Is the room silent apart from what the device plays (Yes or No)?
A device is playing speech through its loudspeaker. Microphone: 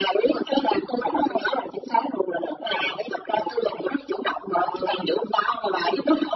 Yes